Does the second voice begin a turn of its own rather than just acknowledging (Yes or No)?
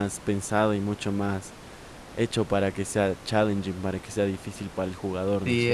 Yes